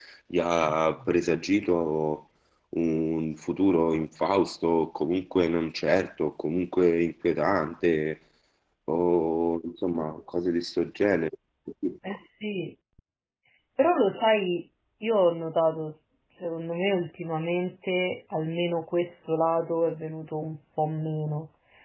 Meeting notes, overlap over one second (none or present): none